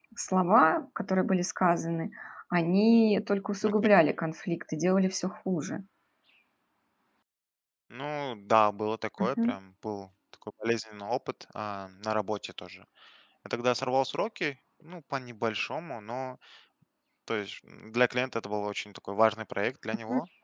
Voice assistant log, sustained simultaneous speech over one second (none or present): none